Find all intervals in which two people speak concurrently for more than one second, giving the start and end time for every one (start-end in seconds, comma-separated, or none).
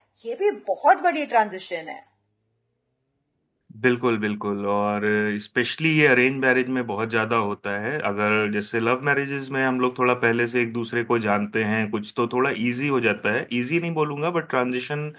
none